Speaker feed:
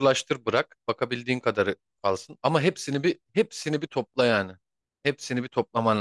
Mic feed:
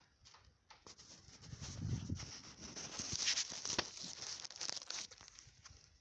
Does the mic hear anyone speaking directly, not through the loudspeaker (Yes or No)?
No